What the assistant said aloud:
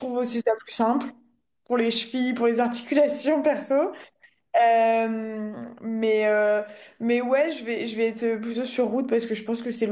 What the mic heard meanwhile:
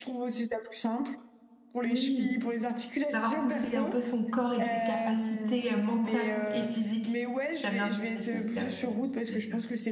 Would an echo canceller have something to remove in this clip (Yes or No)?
Yes